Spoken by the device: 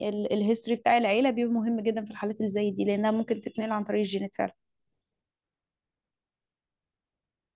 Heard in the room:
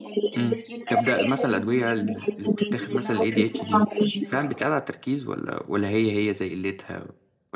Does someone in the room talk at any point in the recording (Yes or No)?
Yes